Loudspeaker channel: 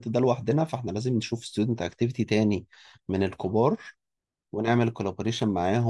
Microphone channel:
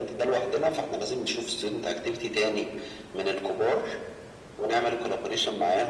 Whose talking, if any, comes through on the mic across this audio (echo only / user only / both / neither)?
echo only